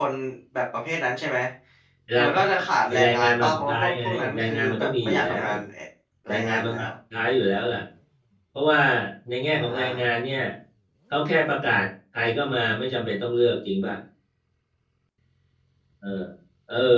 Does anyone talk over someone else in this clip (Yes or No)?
Yes